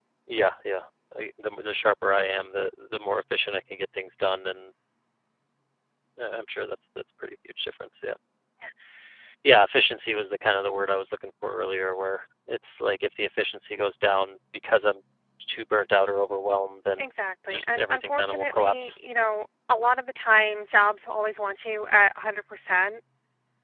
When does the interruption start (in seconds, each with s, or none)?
17.5 s